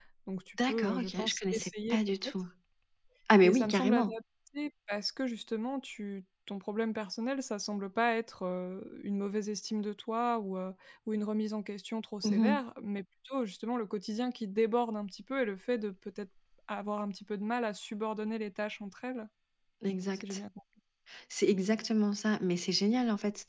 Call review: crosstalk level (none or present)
present